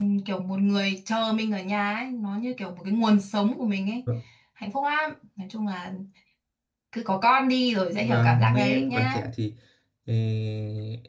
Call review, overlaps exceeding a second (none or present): present